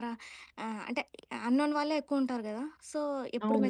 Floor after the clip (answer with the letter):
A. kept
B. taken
A